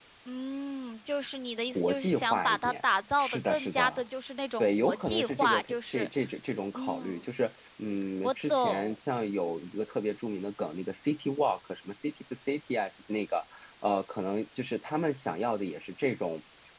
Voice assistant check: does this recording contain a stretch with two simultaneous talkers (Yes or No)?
Yes